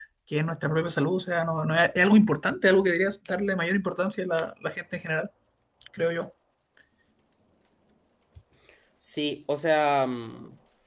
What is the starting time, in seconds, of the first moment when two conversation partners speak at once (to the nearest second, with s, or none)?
none